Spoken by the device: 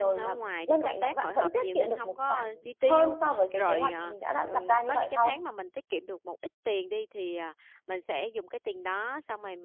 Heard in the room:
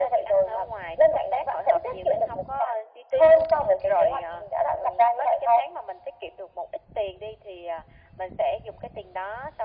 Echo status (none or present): present